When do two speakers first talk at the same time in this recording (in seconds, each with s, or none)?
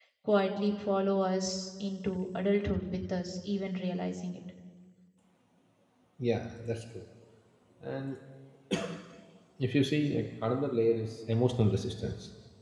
none